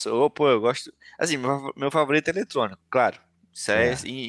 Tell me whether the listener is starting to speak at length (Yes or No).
No